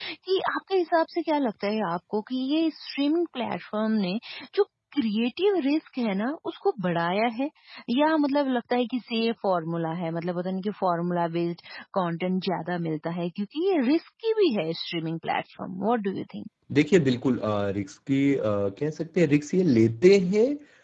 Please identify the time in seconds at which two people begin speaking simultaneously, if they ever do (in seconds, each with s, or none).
none